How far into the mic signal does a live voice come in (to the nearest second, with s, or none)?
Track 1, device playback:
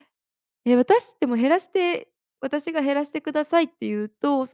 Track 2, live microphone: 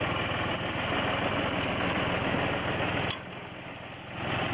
none